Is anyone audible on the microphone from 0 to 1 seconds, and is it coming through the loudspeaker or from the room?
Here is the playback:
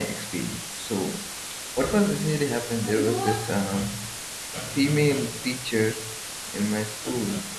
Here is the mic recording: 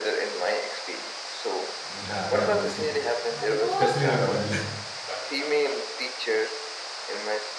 echo only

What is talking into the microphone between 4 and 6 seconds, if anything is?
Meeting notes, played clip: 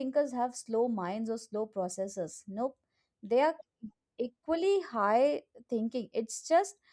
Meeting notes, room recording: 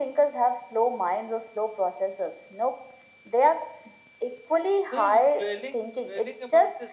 both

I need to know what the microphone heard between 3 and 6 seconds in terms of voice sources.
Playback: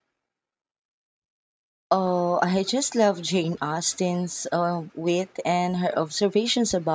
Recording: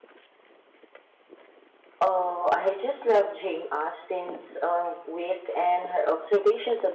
echo only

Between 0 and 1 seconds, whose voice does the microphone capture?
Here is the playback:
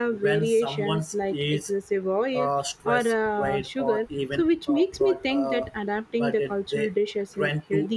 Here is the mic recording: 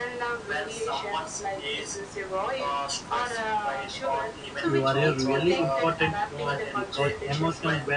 echo only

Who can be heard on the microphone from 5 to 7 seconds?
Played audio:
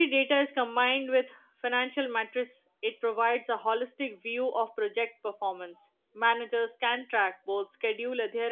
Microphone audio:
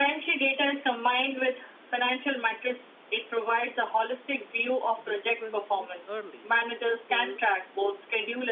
both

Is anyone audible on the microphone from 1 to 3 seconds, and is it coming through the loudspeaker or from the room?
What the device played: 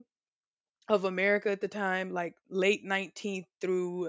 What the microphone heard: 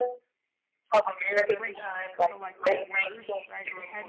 both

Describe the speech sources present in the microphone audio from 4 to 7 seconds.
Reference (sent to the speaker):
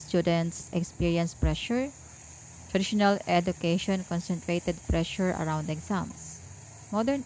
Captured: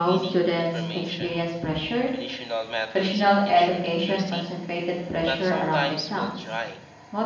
both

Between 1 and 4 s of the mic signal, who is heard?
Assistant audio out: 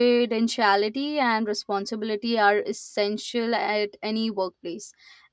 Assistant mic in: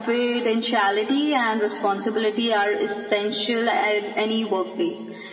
echo only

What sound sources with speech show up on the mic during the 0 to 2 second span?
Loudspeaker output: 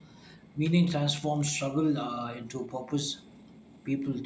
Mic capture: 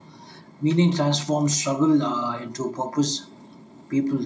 echo only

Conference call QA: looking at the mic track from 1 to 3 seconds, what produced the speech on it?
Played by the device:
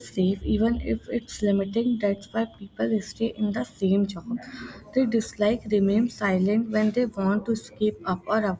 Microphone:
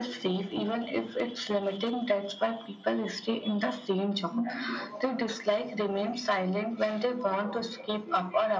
echo only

